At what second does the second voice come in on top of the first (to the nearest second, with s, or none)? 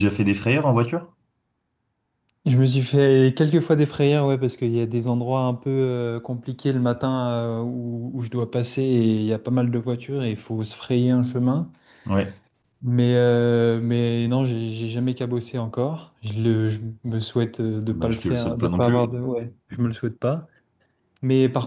18 s